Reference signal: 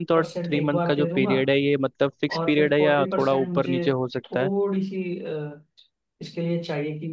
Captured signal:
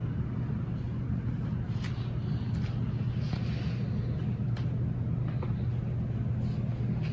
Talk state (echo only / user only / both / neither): neither